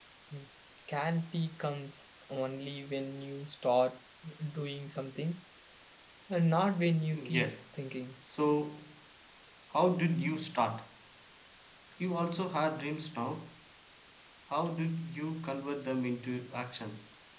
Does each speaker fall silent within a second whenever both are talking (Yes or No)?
Yes